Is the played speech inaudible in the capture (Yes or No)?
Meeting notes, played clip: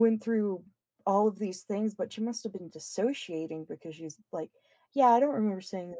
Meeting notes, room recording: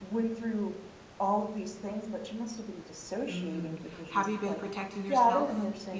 No